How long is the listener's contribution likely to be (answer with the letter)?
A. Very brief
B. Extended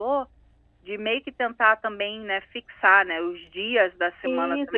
B